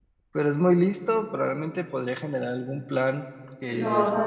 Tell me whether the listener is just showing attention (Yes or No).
No